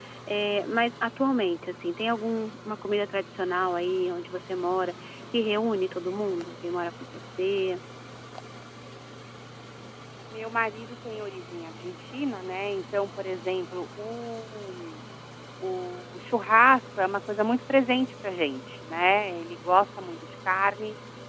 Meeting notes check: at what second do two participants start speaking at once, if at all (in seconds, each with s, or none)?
none